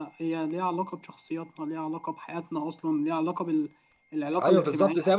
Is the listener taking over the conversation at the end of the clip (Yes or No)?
Yes